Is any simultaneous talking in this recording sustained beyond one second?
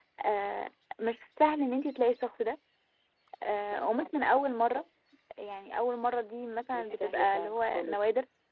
Yes, from 6.7 s

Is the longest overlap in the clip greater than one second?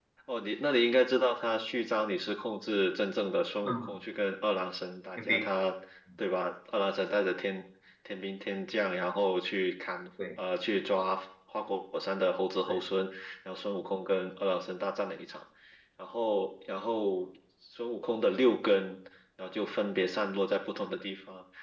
No

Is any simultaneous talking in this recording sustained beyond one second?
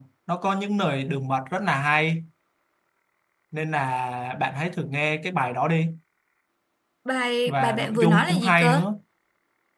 Yes, from 7.5 s

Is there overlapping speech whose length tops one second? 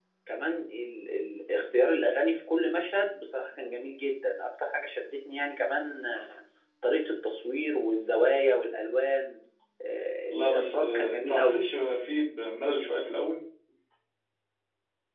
Yes, from 10.3 s

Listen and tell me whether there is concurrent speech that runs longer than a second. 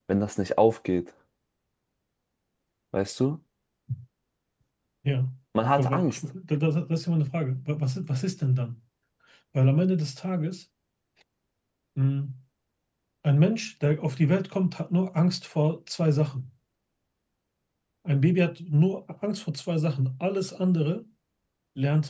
No

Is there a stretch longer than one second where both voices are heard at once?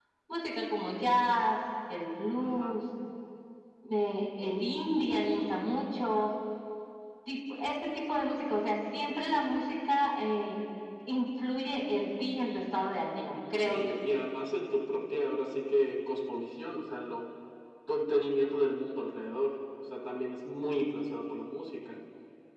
No

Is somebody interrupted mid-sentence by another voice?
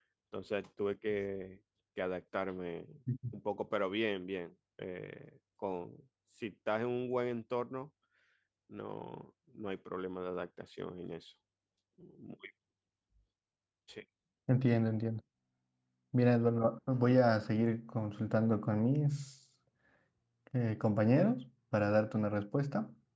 No

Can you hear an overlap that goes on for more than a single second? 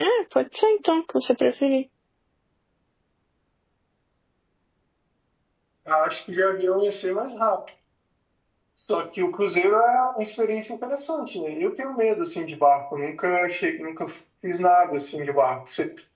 No

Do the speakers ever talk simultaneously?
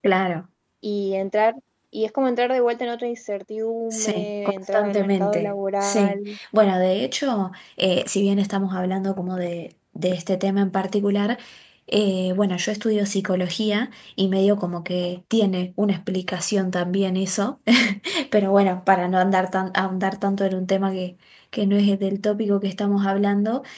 Yes, from 3.9 s

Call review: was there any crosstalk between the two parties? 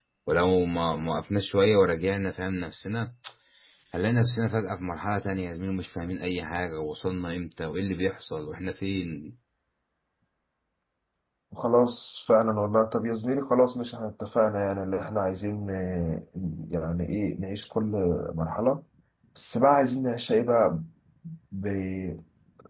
No

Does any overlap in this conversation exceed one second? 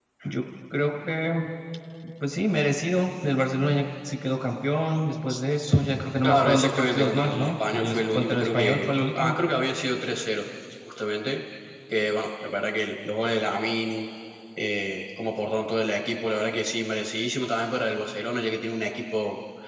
Yes, from 6.2 s

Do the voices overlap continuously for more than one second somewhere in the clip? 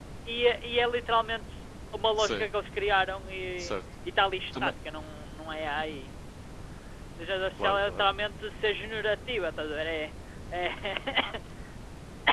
No

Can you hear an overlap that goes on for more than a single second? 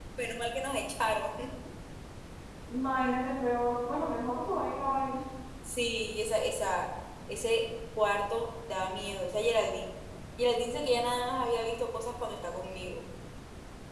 No

